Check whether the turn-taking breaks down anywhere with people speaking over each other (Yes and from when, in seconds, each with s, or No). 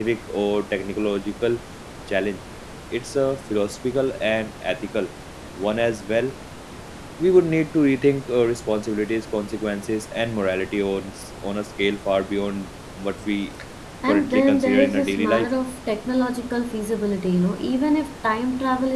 Yes, from 14.1 s